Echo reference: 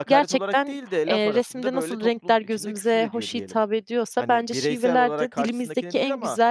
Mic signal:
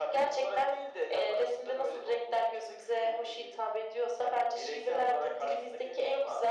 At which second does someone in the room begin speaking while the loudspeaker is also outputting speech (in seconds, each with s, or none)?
none